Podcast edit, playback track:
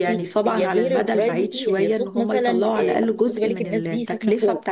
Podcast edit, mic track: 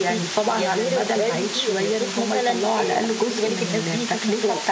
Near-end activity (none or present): none